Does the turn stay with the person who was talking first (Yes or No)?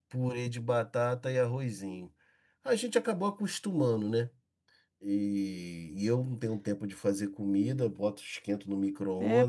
No